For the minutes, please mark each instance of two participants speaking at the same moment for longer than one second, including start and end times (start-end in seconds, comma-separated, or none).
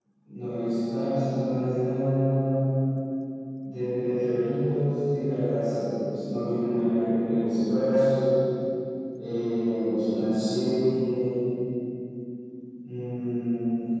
none